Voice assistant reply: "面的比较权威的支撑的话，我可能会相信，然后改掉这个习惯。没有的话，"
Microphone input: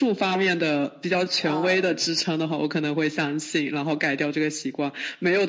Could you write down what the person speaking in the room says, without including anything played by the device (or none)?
呃，